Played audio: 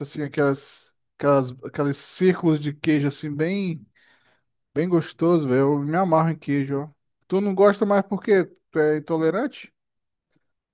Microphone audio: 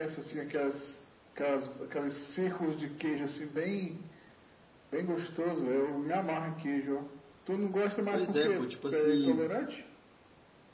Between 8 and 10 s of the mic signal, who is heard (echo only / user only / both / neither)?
both